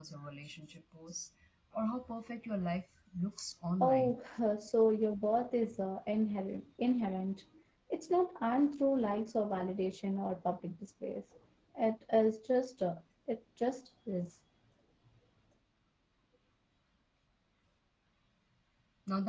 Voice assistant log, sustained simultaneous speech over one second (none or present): none